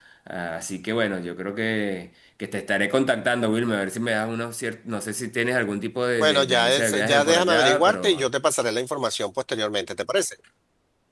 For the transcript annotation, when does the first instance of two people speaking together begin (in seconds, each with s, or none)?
6.2 s